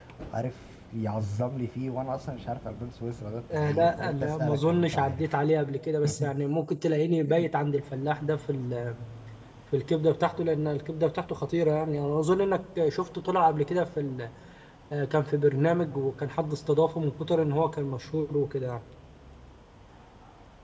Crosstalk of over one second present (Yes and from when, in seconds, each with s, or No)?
Yes, from 3.5 s